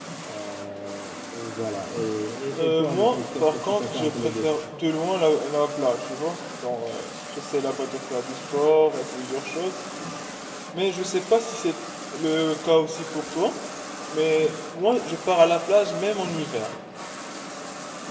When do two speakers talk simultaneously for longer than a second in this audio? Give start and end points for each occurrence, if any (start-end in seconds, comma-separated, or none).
2.5-4.4